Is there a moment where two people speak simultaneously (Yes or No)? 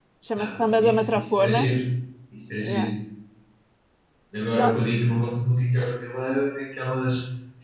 Yes